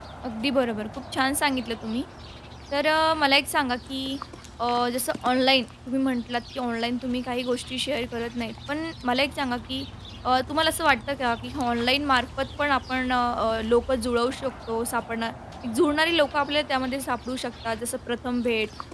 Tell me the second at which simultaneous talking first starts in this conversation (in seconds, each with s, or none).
none